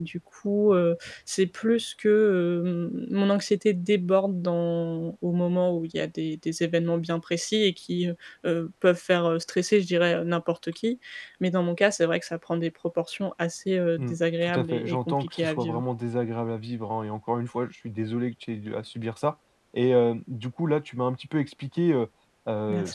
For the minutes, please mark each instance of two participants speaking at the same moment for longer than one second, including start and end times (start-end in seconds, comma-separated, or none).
14.0-15.8